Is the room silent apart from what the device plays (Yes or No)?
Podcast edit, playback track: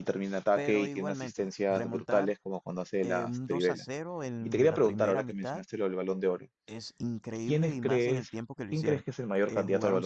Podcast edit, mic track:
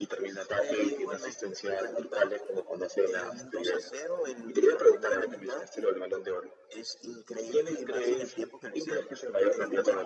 Yes